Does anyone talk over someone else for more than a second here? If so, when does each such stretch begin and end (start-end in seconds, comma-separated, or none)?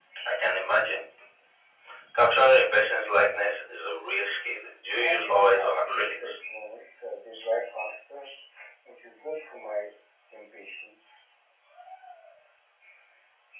5.0-6.3